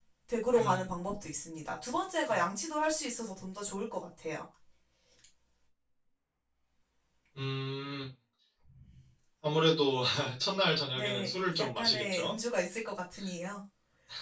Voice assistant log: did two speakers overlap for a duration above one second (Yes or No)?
Yes